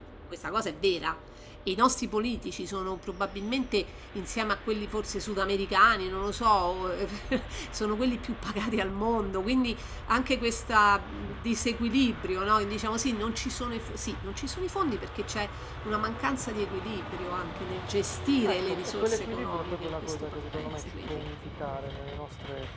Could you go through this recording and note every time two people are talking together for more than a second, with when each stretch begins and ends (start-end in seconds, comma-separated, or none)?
18.4-21.2